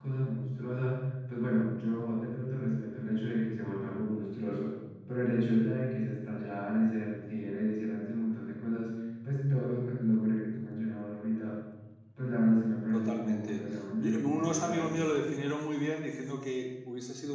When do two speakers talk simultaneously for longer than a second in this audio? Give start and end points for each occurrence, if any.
12.9-15.1

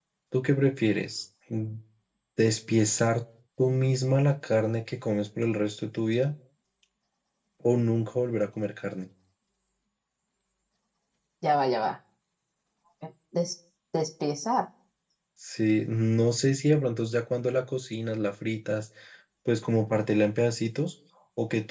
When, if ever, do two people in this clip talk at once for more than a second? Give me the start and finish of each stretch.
none

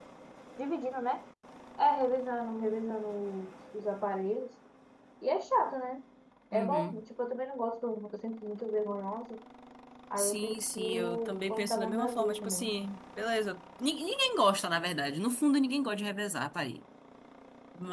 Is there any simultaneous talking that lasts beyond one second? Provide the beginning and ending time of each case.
10.2-12.8

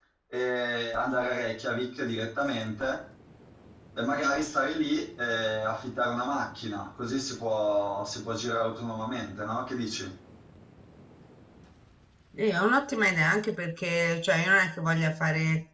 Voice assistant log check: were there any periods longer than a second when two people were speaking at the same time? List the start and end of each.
none

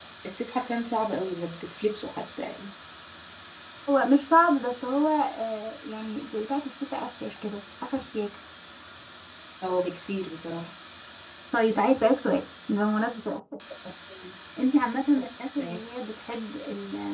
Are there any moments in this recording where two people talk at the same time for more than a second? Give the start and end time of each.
none

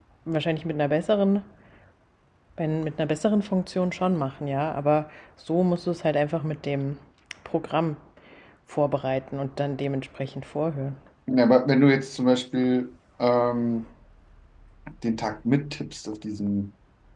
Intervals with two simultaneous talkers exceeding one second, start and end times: none

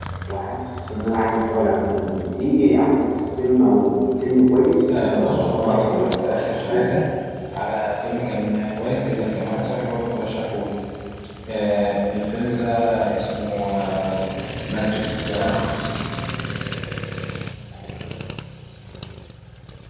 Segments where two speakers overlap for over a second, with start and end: 4.9-7.0

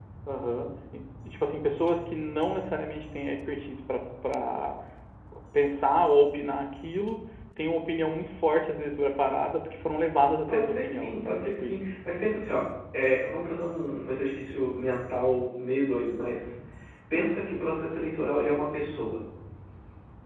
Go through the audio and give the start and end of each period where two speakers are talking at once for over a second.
10.5-11.8

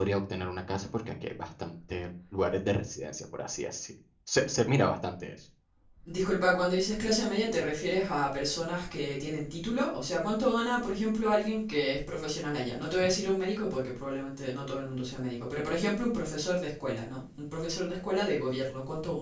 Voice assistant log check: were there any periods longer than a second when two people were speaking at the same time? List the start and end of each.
none

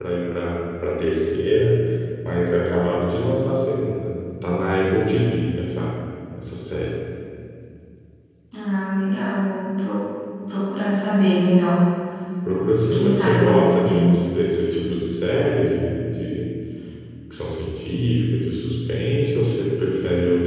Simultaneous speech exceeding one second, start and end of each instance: 12.8-14.3

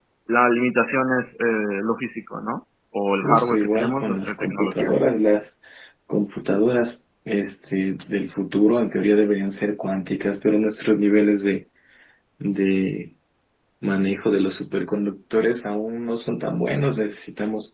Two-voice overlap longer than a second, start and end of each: 3.2-4.9

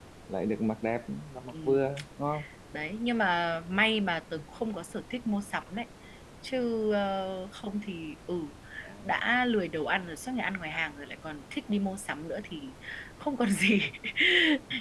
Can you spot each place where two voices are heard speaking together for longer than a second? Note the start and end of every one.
none

